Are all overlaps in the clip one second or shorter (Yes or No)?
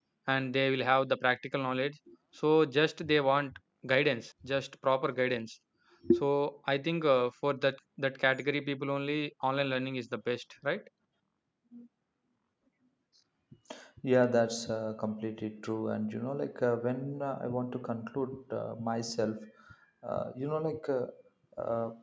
Yes